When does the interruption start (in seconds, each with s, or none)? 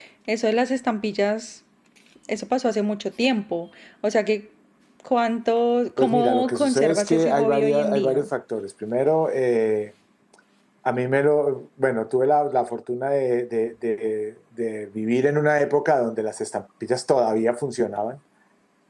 6.0 s